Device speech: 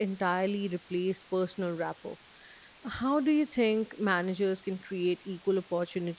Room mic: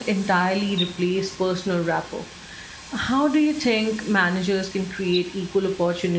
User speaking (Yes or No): No